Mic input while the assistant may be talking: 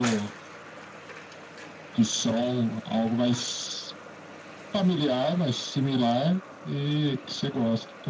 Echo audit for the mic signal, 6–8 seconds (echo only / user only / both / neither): echo only